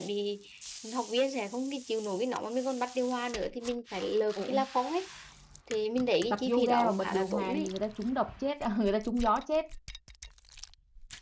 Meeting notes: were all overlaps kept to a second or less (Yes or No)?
No